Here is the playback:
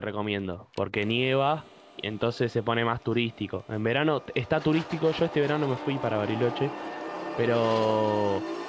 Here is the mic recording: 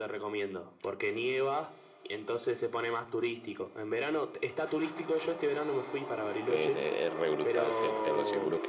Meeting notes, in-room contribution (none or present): present